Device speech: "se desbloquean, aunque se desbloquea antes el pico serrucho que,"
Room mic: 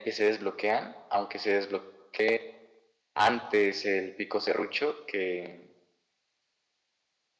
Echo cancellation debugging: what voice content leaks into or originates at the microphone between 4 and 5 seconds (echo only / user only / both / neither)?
echo only